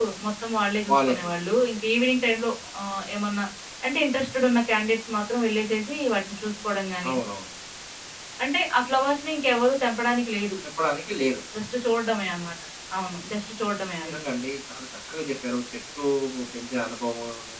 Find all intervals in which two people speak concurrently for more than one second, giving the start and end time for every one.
none

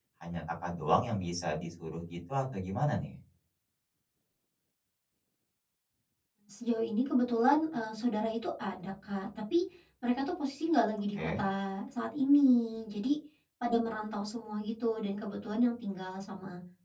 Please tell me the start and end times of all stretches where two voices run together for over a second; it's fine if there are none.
none

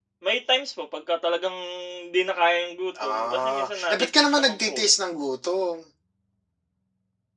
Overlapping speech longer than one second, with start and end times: 3.1-4.9

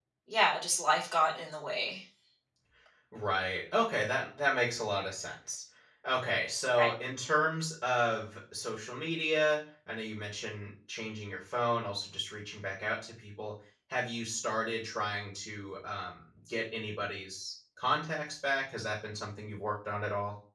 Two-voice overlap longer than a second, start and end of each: none

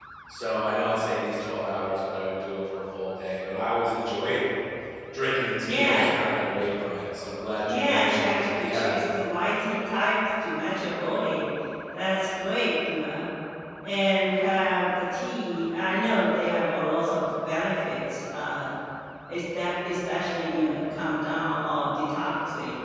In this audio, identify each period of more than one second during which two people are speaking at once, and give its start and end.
7.7-9.0

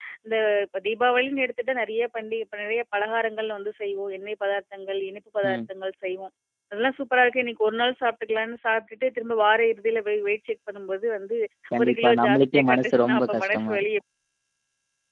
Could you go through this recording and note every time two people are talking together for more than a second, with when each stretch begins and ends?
11.8-13.8

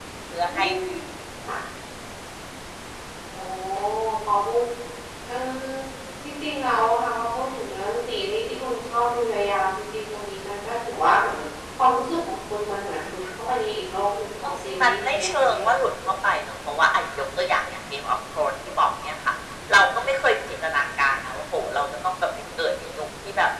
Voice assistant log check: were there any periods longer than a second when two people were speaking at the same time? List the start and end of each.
14.4-15.6

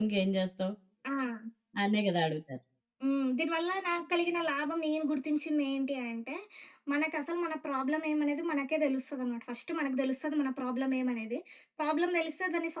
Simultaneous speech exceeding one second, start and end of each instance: none

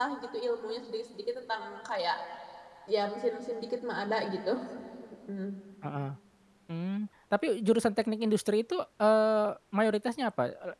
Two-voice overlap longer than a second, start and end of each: none

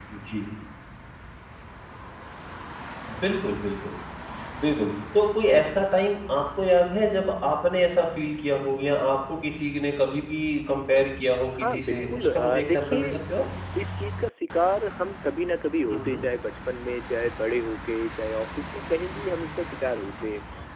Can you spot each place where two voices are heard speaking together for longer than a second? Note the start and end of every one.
11.6-13.1

